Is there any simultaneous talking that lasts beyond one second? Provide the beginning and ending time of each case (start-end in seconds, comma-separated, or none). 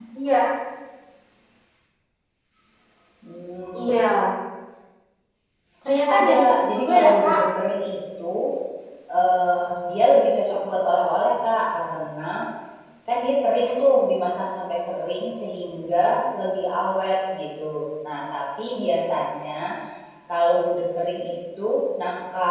6.2-7.4